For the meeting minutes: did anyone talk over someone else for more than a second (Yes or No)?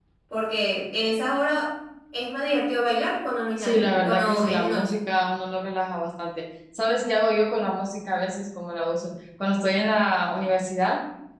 Yes